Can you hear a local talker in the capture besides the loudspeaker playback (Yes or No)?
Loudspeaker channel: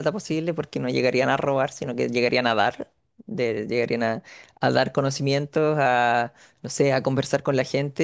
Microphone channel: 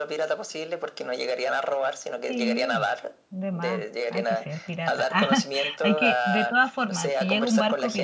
Yes